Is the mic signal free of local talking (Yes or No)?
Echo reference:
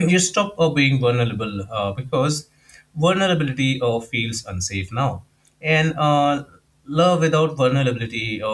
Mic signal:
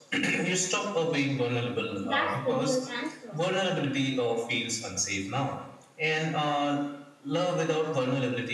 No